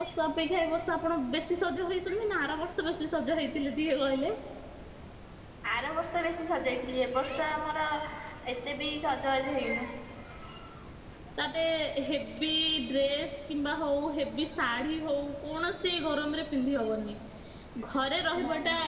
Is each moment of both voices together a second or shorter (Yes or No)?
Yes